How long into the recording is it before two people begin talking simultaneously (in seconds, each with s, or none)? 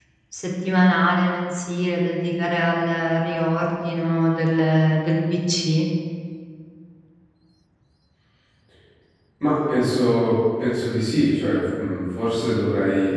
none